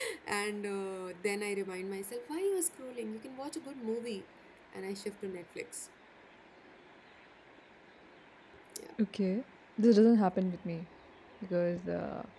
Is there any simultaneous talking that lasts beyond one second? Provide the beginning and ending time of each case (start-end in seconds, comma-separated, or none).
none